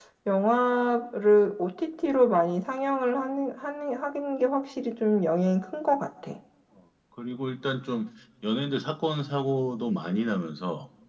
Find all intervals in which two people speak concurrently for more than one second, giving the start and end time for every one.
none

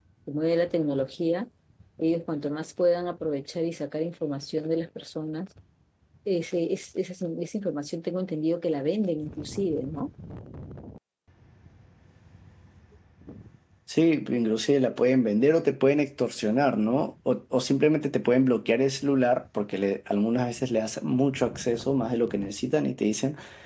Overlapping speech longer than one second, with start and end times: none

